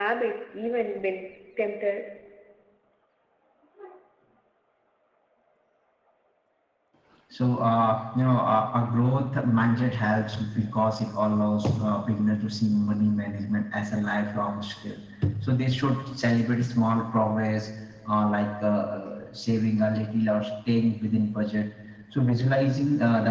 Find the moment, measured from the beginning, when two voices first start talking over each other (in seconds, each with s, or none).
none